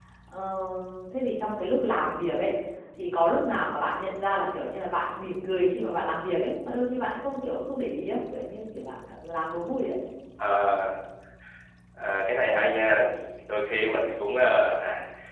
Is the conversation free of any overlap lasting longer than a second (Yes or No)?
Yes